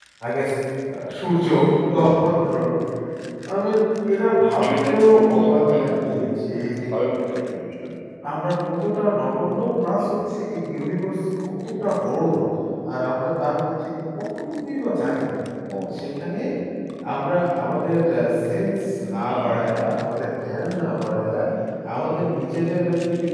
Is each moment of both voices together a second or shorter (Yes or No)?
No